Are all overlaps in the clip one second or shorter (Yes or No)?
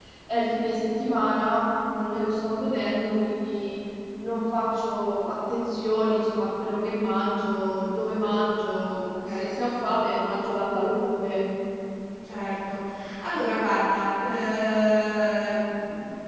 Yes